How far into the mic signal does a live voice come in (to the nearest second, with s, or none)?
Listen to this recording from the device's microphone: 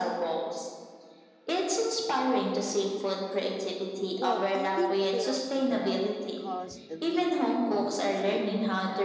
4 s